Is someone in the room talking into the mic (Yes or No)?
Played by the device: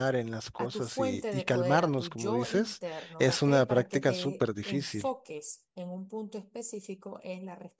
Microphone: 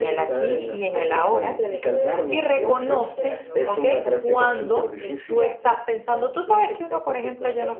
Yes